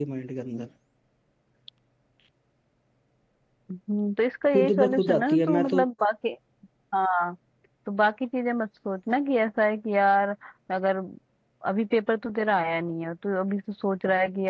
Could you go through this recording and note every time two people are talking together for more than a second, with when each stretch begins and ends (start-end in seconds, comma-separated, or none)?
4.5-5.8